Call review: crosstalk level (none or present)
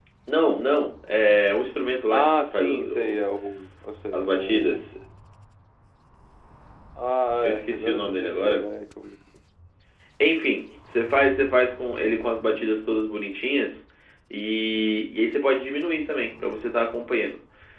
present